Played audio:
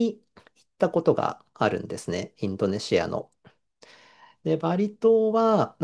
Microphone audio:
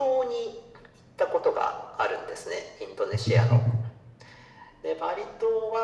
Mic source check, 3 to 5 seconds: both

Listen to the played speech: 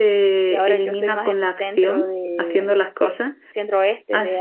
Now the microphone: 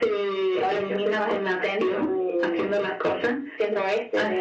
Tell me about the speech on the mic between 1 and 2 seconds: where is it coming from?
echo only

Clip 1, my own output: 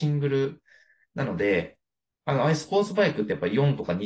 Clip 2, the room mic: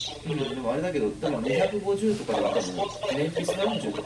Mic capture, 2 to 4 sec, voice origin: both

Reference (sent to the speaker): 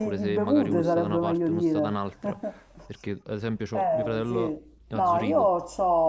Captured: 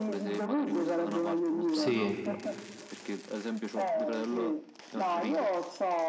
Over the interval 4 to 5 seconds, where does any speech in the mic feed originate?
echo only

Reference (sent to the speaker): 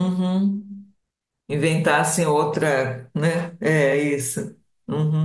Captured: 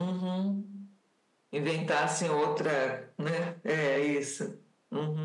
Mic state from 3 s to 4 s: echo only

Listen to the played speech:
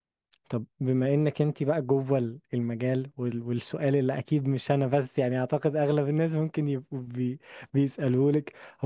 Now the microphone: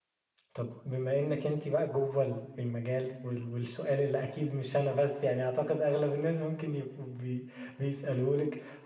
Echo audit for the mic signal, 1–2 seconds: echo only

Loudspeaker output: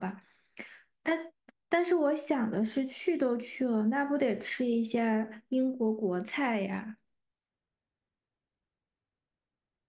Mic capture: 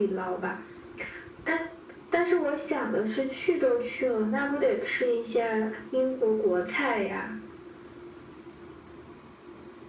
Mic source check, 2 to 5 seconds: echo only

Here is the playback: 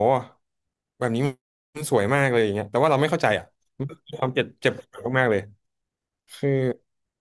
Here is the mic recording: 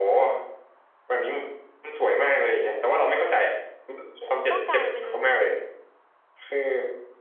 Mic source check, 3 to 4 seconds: echo only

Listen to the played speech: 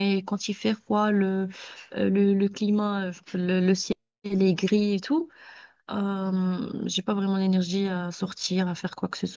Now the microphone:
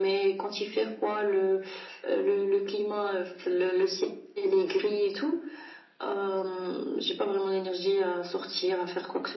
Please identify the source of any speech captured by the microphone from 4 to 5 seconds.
echo only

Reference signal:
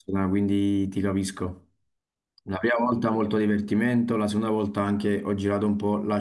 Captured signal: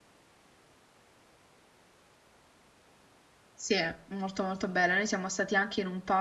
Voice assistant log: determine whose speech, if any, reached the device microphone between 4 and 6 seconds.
user only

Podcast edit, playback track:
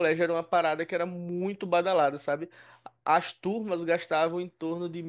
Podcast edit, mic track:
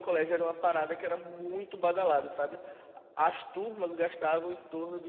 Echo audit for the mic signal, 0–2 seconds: echo only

